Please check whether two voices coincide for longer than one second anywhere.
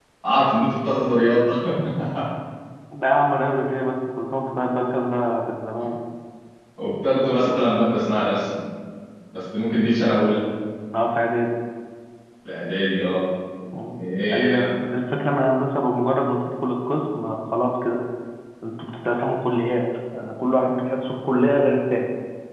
No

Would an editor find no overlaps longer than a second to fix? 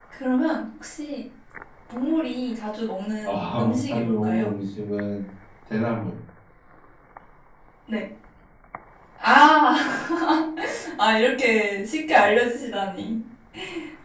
No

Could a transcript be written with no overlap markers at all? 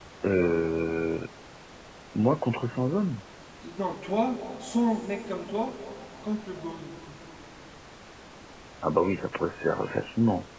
Yes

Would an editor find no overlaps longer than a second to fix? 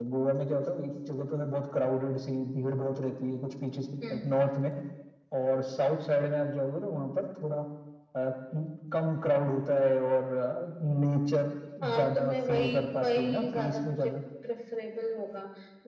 No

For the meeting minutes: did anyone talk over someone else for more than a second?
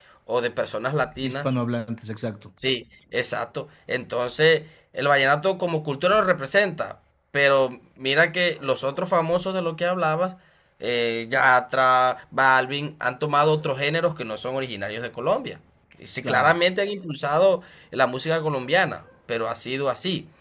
No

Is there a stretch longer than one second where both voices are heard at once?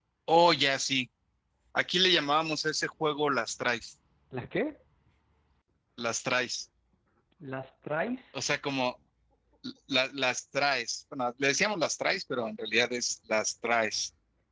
No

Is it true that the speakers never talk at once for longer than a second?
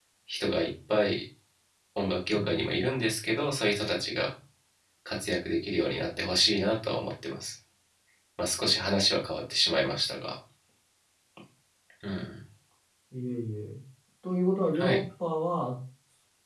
Yes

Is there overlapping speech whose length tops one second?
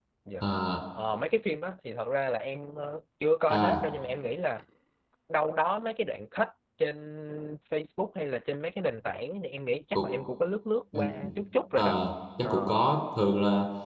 No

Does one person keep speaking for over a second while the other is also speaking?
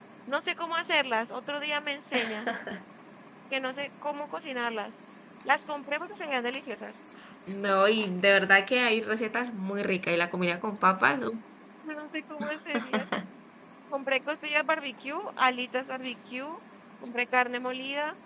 No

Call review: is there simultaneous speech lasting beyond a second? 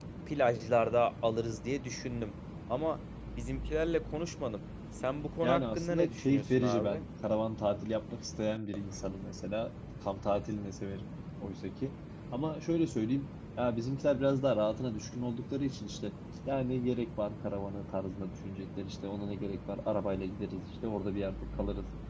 Yes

